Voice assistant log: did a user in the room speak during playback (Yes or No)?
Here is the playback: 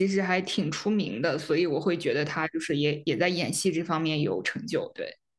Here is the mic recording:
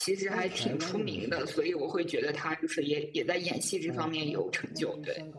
Yes